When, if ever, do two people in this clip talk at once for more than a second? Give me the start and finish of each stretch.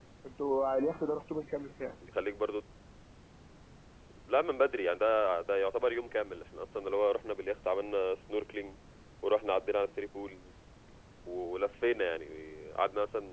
none

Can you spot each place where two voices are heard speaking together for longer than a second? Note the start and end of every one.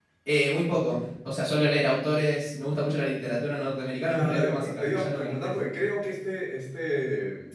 4.2-5.5

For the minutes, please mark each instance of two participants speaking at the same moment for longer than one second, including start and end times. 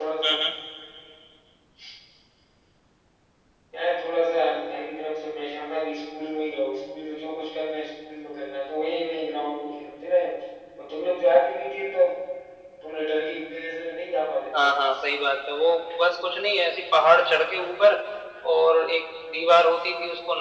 none

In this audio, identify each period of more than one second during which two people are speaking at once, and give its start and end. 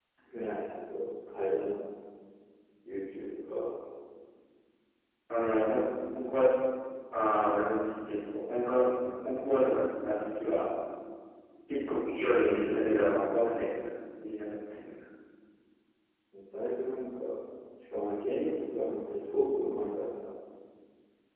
12.2-13.4

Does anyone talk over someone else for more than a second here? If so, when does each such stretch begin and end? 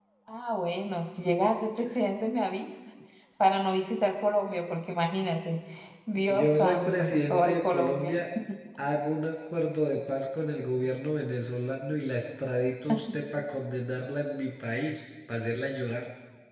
6.3-8.2

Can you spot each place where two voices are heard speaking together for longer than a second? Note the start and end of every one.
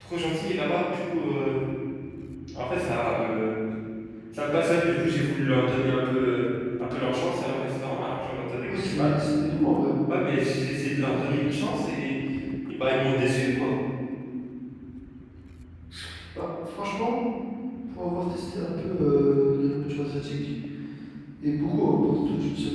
none

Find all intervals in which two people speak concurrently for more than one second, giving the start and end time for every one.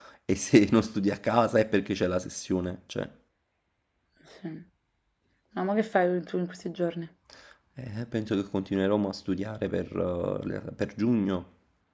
none

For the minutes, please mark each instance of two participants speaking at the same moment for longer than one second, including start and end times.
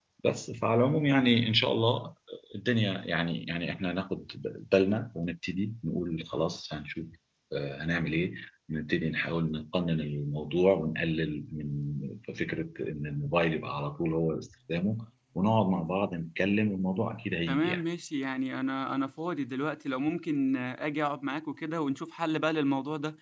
none

